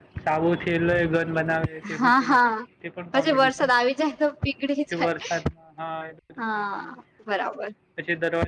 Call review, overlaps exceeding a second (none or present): none